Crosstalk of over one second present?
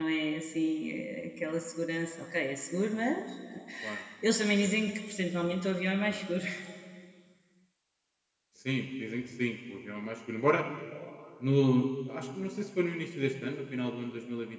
No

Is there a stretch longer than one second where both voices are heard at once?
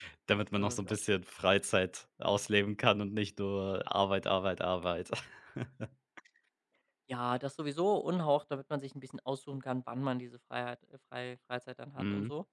No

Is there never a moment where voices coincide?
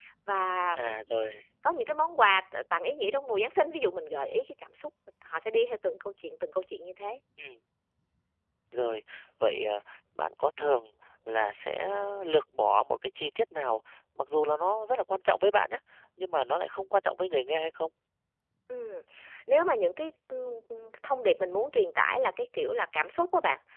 Yes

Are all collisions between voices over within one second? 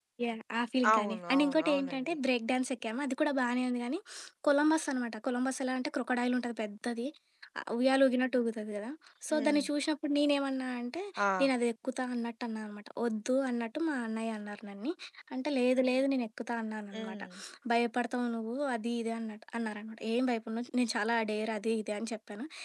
No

